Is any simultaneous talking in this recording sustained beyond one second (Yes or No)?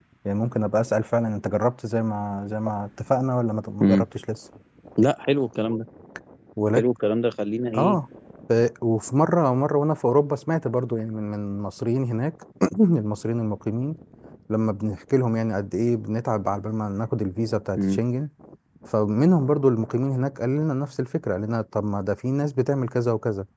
No